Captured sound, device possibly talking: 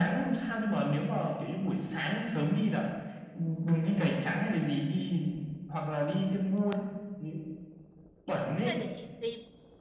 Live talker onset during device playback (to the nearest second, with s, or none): 9 s